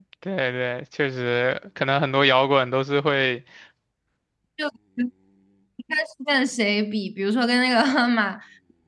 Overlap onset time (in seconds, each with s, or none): none